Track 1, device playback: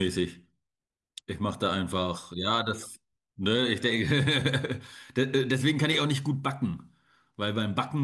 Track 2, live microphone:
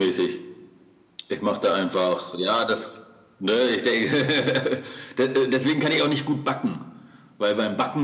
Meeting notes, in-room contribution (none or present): none